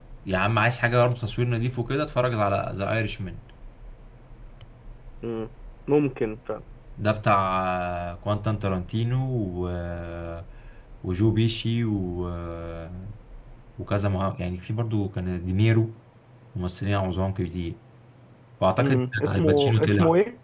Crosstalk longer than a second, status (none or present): present